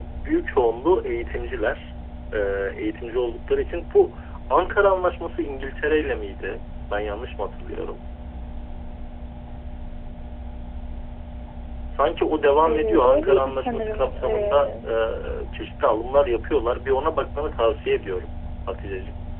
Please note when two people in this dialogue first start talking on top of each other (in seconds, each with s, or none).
12.6 s